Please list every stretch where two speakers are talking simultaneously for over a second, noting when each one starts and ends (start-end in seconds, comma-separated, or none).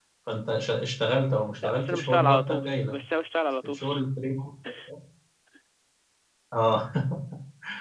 1.6-2.9